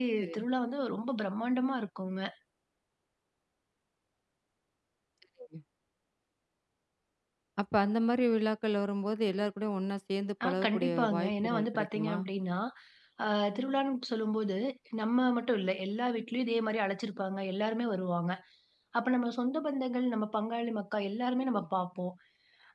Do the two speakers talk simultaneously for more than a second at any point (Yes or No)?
Yes